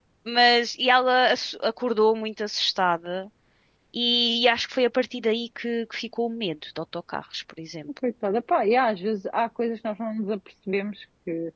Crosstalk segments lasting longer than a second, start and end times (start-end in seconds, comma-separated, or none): none